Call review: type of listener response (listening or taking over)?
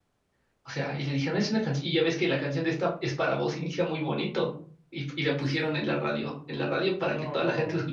listening